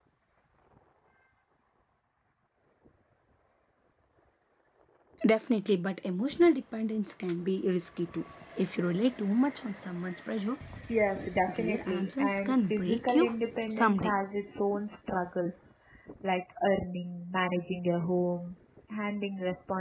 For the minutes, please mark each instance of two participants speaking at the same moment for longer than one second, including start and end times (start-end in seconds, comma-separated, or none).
11.5-13.3